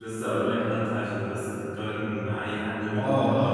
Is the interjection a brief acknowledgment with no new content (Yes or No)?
No